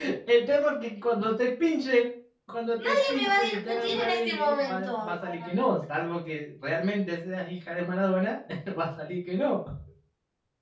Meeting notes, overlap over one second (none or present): present